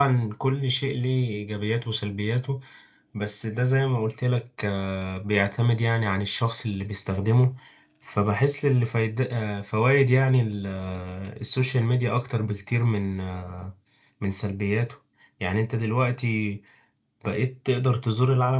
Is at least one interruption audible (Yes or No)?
No